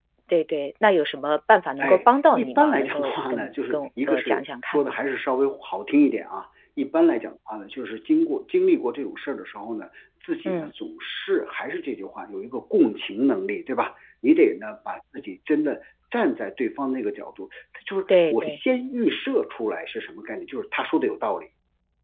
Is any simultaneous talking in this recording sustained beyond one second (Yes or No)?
Yes